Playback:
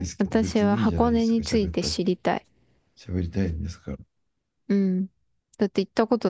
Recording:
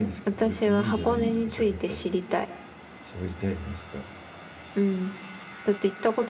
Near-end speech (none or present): present